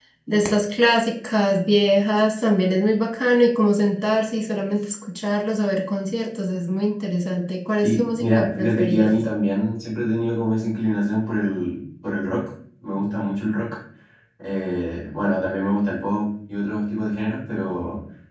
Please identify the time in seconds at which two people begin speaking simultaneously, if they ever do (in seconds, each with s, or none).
7.8 s